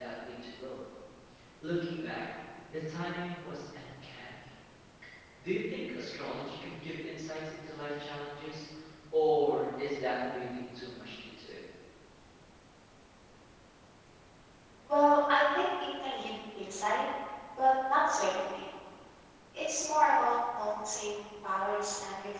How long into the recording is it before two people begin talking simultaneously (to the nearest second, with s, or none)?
none